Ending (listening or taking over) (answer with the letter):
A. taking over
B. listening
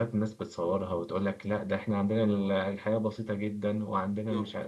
B